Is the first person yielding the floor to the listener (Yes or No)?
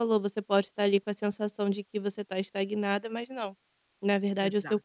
No